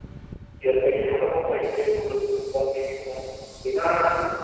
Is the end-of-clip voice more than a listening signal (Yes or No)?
No